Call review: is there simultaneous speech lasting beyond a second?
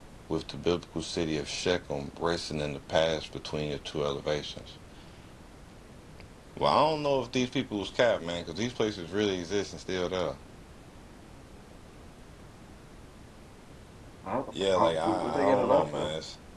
Yes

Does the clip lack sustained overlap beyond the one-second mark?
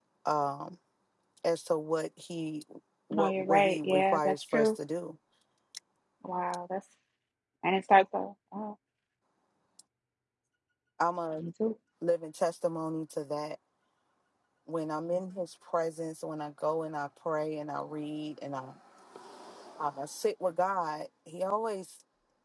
No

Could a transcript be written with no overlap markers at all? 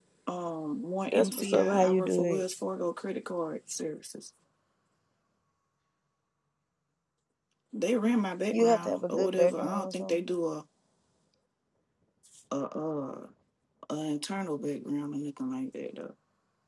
No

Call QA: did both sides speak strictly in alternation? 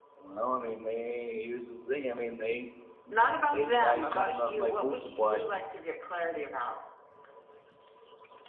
No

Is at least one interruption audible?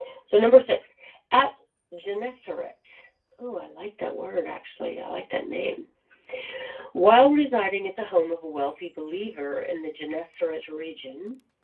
No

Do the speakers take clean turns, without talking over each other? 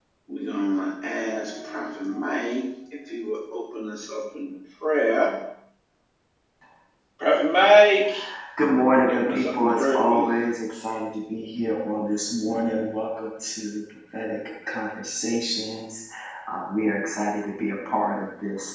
No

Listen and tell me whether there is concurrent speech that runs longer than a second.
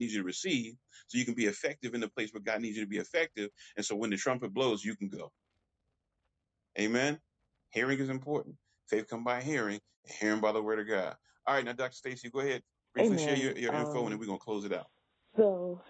Yes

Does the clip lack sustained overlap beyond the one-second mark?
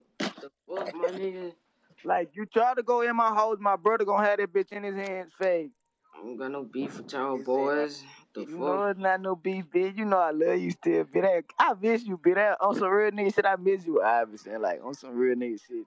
Yes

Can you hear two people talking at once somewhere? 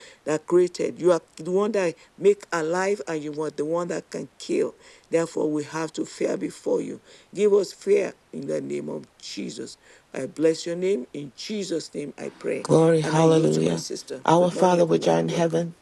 Yes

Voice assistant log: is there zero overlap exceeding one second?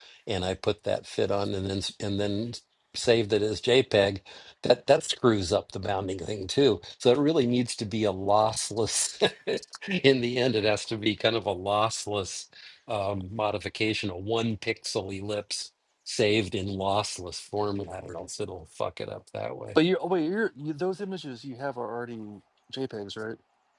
Yes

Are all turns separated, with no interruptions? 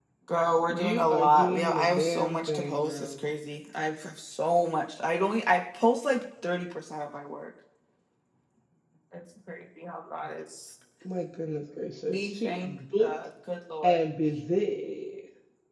No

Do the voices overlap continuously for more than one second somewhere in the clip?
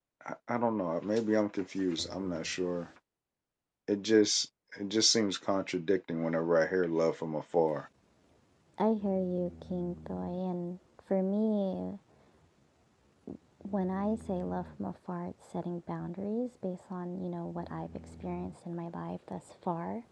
No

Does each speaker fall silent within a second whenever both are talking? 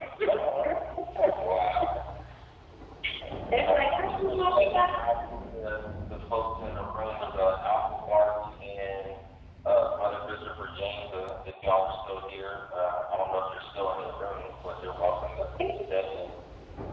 No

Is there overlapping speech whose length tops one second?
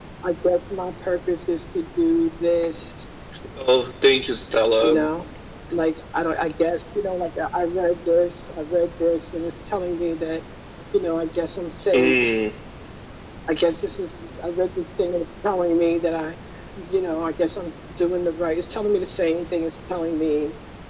No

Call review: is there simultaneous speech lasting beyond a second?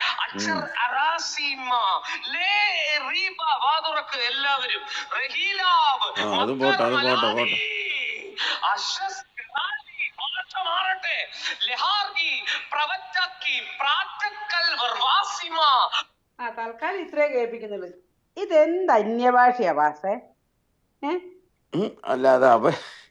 Yes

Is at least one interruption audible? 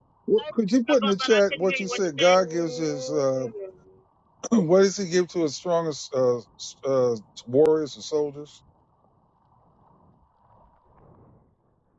Yes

